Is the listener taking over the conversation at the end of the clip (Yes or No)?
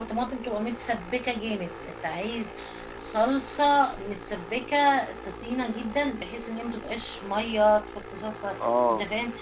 No